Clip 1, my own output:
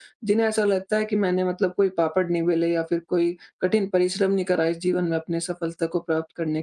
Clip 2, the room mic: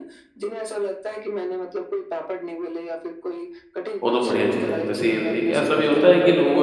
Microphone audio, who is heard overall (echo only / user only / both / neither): both